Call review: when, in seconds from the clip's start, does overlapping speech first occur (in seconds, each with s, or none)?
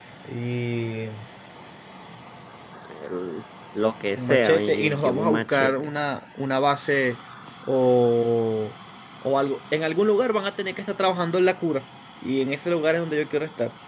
4.2 s